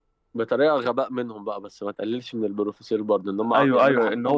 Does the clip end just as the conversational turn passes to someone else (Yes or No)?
Yes